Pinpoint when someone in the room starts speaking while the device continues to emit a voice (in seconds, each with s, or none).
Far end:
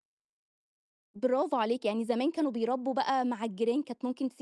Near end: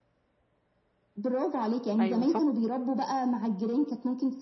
2.0 s